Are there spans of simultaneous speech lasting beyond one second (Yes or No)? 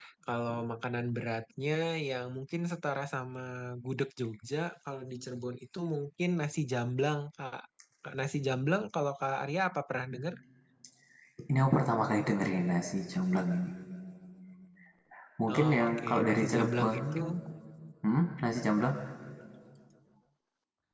Yes